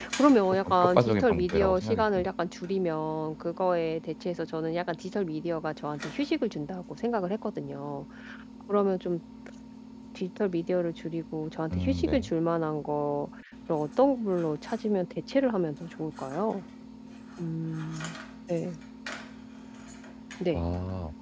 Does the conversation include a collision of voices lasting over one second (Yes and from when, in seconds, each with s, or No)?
Yes, from 0.7 s